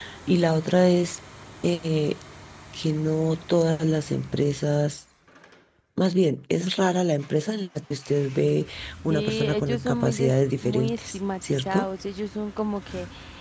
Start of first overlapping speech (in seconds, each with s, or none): 9.1 s